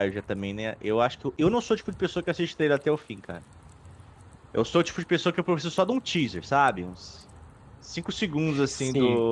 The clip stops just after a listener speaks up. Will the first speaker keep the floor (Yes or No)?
Yes